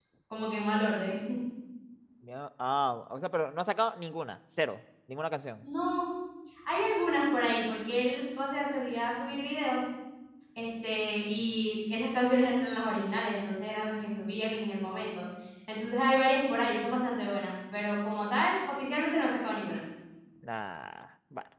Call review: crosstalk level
none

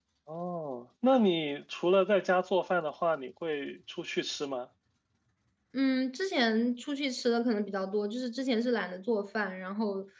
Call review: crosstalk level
none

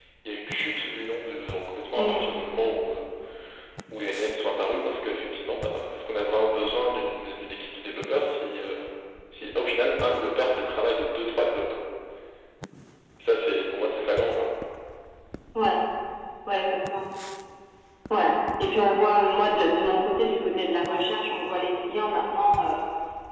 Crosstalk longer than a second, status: none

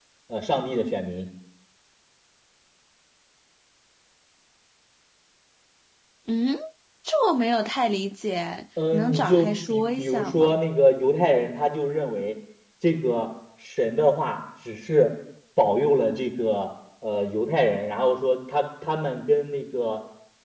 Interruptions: present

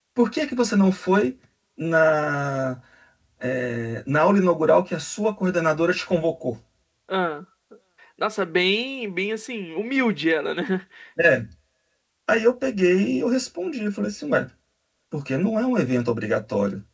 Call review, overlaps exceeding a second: none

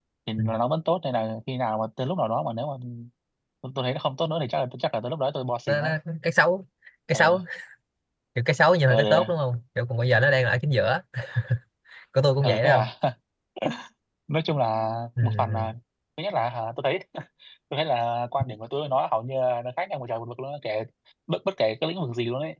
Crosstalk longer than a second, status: none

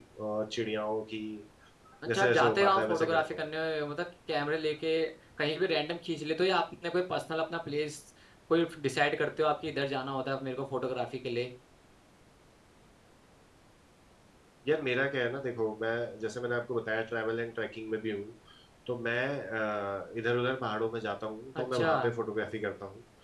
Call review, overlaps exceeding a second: present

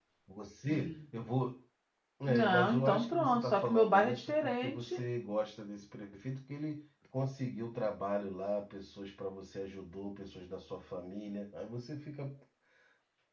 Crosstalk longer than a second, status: present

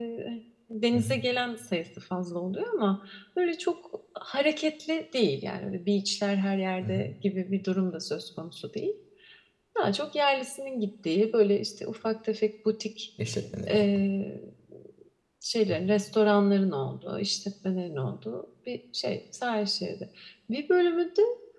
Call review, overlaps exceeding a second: none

